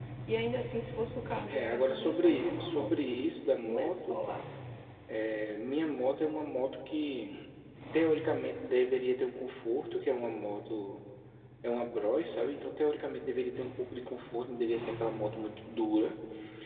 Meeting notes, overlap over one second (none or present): present